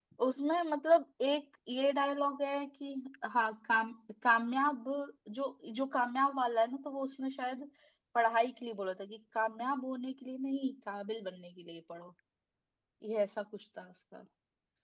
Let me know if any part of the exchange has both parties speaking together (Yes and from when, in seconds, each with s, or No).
No